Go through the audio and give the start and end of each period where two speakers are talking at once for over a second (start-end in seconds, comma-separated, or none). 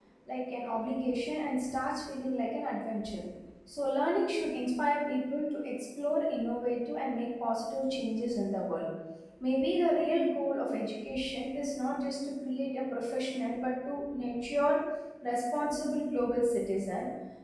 none